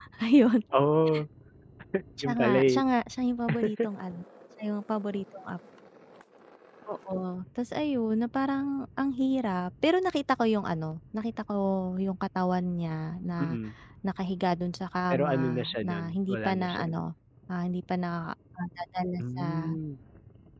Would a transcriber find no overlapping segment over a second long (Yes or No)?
No